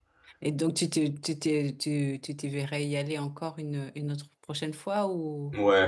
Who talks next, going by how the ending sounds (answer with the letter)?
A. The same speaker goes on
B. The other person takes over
B